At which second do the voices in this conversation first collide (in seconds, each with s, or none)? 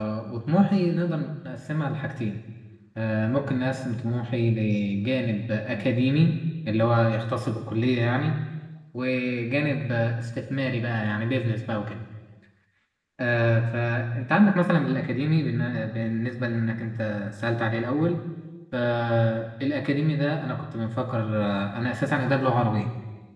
none